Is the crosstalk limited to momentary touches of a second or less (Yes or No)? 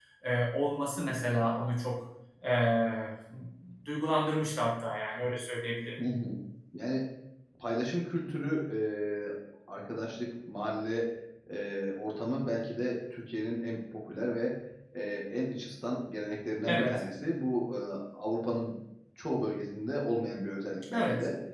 Yes